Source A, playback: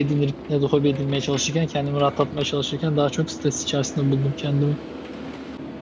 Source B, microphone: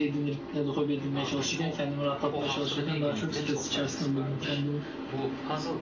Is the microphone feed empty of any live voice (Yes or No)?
No